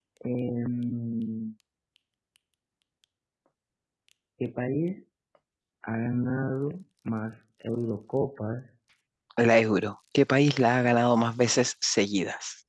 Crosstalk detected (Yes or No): No